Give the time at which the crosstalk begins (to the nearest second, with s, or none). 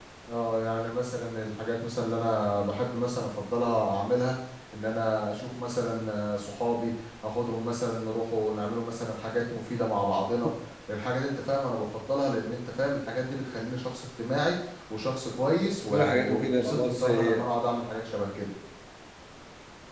16 s